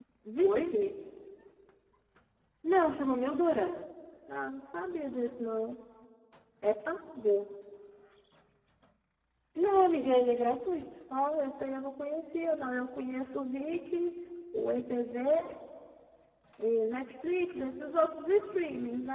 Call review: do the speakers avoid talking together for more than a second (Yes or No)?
Yes